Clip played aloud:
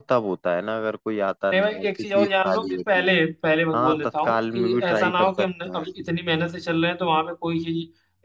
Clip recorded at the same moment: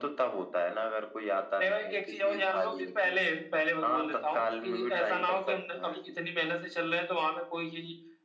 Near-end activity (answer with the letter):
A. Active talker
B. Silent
B